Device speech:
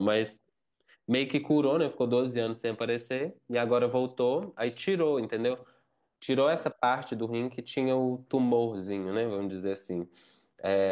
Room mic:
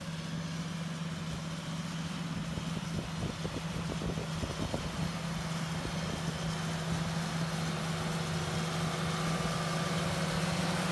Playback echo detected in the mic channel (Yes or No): No